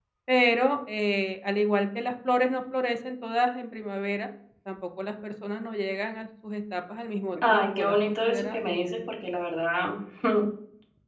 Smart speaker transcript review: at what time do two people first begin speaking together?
7 s

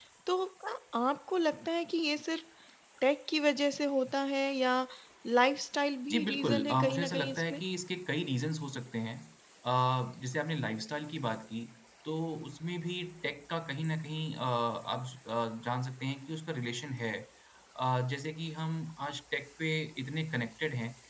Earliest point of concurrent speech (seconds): 6 s

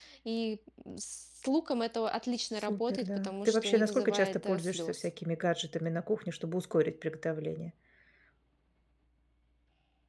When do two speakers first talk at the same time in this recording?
3 s

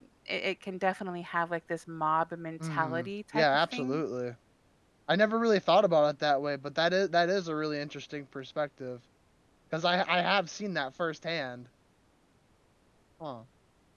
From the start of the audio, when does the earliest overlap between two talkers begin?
3 s

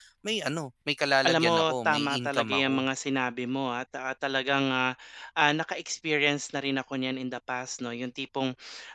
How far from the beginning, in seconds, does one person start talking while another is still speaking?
1 s

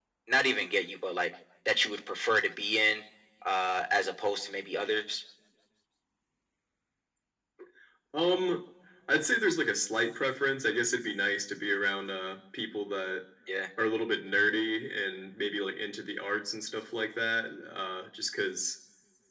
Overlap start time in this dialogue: none

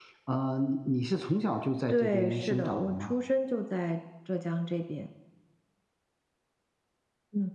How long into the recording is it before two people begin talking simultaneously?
2 s

